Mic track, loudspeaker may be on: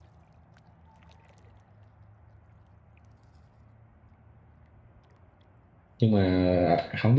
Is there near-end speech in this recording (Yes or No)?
Yes